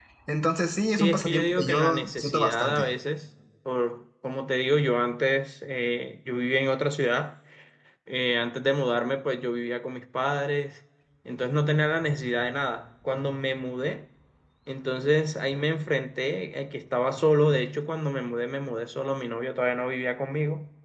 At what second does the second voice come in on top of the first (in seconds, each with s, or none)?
0.9 s